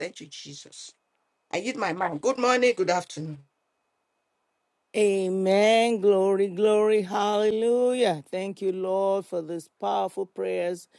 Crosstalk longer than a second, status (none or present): none